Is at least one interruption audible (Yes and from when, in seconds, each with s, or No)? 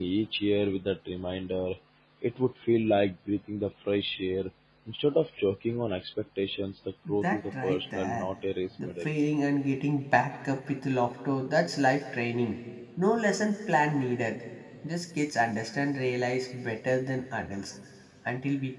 Yes, from 7.1 s